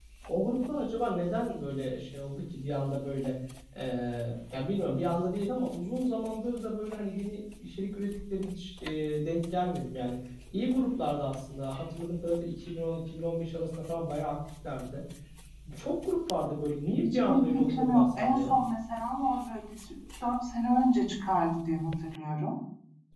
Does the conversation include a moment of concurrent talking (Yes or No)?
Yes